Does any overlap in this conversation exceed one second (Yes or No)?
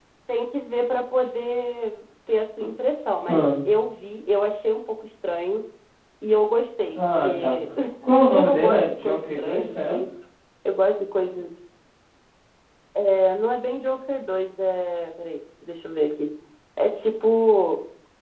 Yes